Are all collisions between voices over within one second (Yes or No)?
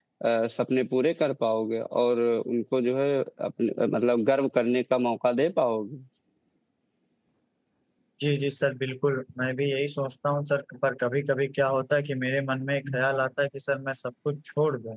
Yes